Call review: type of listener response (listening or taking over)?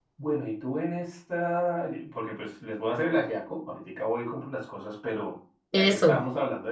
listening